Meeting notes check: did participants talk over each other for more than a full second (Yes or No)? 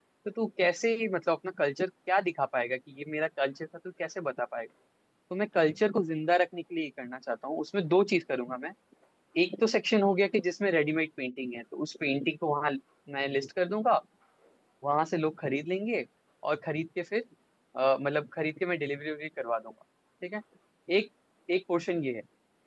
No